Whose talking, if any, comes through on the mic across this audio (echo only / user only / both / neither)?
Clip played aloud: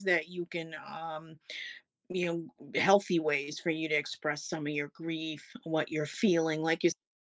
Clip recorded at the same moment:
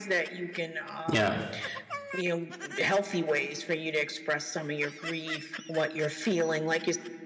both